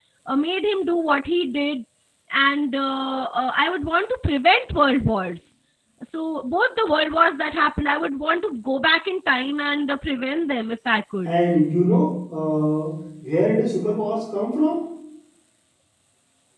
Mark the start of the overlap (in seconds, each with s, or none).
none